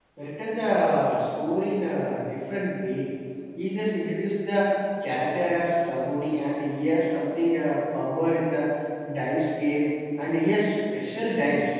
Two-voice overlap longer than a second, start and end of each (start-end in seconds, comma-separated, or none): none